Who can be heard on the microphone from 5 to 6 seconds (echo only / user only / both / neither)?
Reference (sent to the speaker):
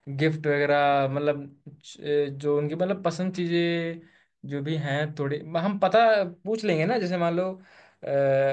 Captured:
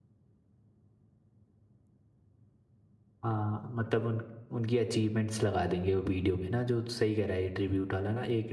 user only